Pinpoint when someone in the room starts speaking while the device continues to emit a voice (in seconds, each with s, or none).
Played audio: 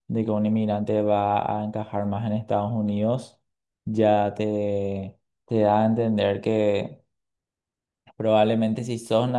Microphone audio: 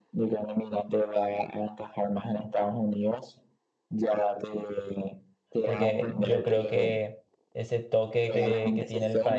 5.6 s